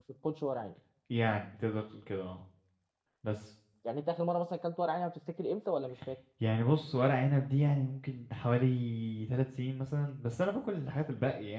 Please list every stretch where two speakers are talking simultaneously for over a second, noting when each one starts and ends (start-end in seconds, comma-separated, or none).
none